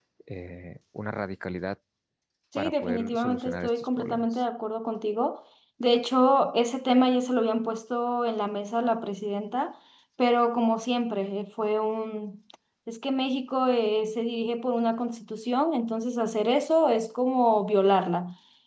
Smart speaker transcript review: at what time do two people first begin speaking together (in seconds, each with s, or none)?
2.6 s